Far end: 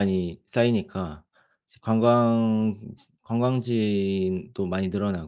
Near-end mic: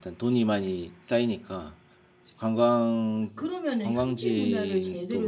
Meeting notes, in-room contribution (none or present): present